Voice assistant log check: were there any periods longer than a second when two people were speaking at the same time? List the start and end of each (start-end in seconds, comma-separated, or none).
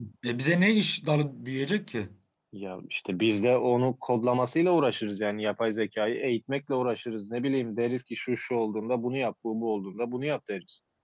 none